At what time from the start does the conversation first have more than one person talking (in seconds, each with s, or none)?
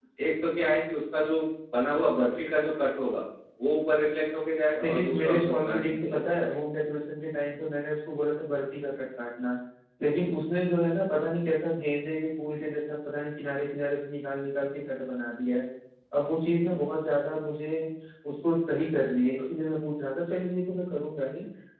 4.8 s